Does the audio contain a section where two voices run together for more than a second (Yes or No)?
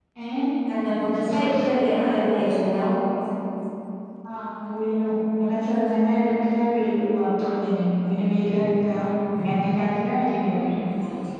No